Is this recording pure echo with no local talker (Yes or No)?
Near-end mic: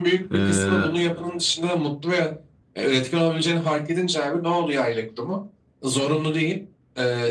No